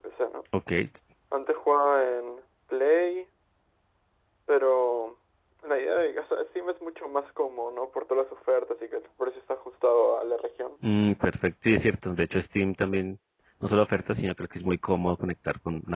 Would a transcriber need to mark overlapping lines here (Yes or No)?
No